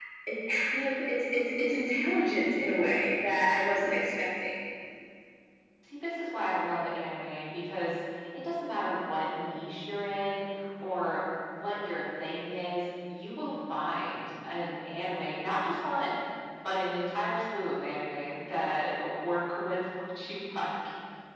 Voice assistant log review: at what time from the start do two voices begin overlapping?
none

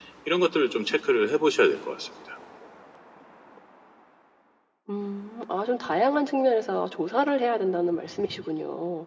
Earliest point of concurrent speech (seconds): none

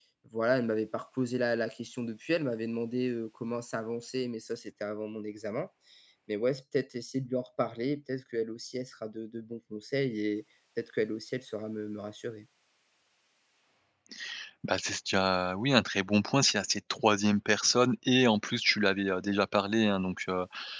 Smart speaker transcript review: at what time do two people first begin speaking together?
none

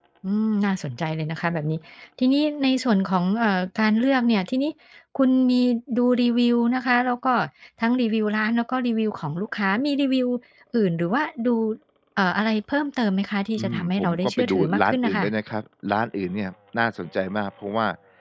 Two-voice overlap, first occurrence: 14 s

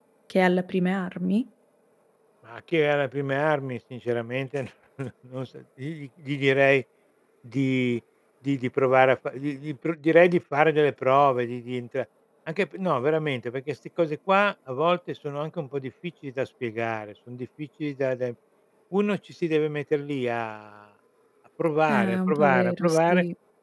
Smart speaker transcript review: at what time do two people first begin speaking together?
22 s

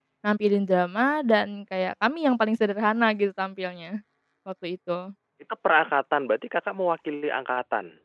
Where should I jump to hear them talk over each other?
none

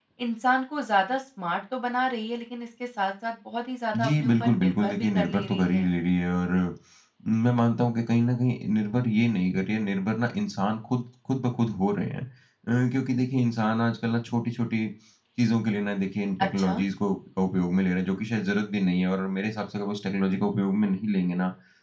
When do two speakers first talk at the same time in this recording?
4 s

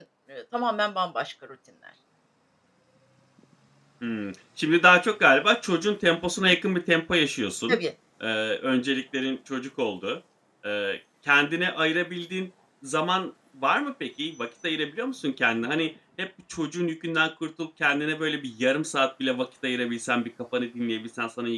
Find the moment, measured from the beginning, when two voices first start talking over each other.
none

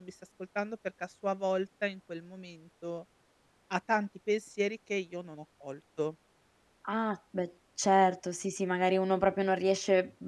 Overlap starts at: none

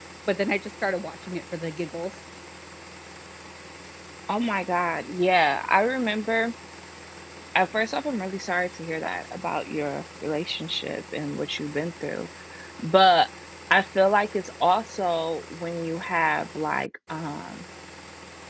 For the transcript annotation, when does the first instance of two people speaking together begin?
none

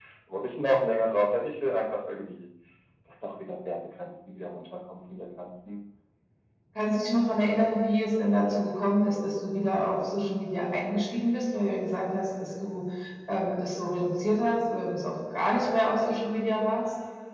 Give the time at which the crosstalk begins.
none

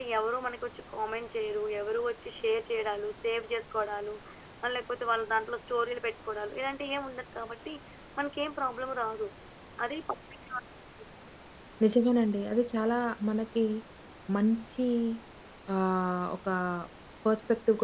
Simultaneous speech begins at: none

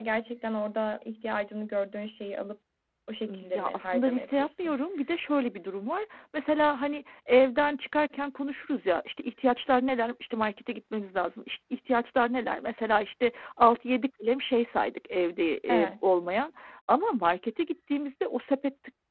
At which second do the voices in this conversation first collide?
3 s

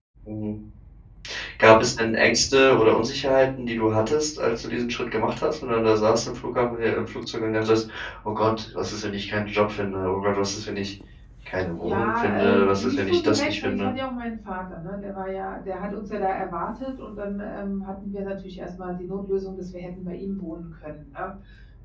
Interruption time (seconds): 12 s

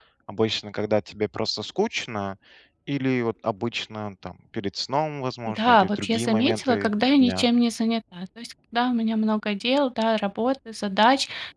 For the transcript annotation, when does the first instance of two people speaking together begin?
5 s

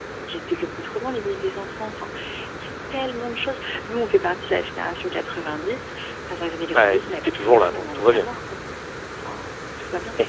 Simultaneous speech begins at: 7 s

